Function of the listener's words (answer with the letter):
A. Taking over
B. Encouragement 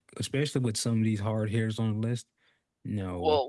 A